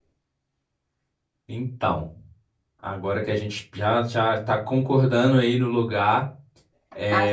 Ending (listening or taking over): taking over